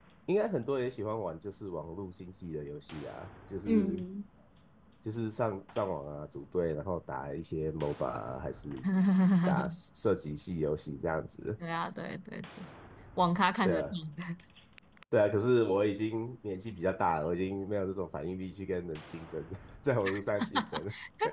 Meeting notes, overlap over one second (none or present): none